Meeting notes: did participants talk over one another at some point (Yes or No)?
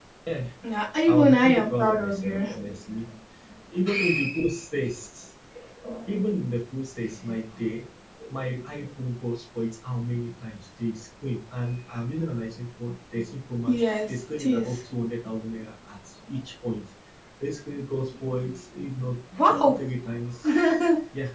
Yes